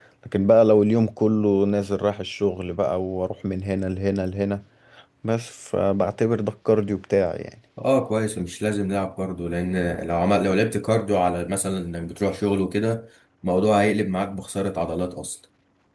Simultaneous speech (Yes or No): No